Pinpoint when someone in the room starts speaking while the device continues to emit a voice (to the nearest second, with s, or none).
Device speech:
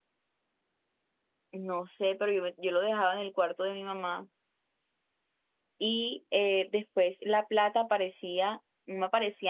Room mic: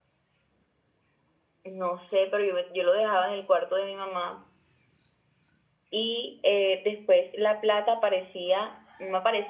none